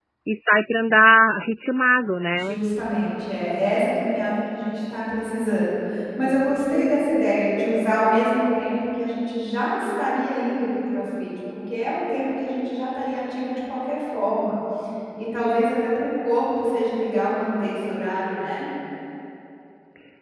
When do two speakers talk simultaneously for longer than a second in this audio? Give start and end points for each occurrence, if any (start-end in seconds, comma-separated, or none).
none